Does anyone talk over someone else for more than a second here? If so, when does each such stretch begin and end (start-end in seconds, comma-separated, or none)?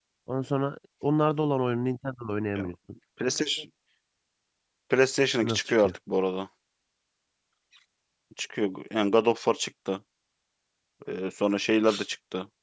none